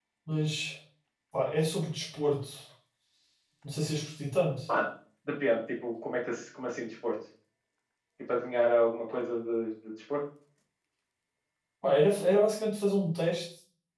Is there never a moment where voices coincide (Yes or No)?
Yes